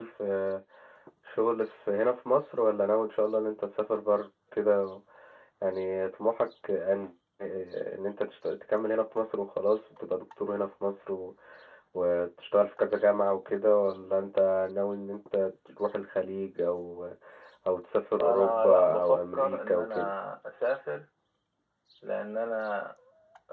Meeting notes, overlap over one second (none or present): present